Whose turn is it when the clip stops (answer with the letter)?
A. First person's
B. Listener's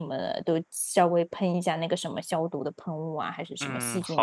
B